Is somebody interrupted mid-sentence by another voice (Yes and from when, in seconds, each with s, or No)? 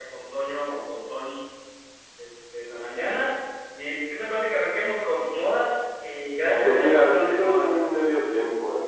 Yes, from 6.4 s